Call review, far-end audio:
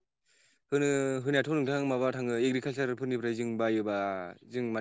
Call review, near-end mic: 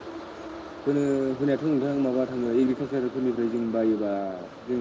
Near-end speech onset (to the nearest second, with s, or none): none